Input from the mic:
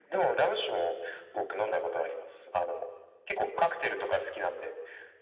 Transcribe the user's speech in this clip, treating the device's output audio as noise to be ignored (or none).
none